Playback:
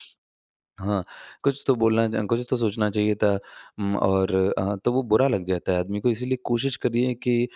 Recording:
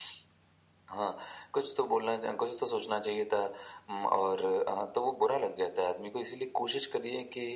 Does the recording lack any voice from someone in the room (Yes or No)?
Yes